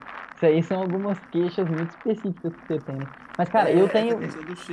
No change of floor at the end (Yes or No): No